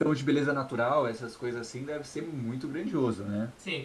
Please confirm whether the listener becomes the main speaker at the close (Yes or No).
Yes